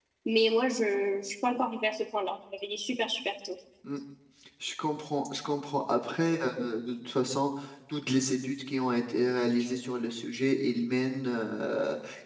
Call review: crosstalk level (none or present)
none